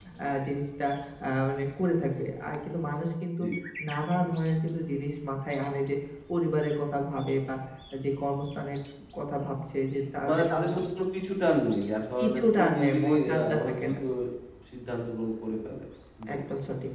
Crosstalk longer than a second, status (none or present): present